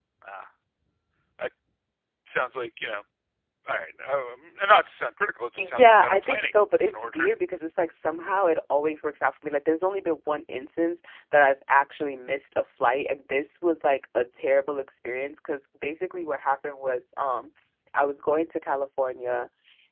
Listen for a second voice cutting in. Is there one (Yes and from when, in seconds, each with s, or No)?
Yes, from 5.6 s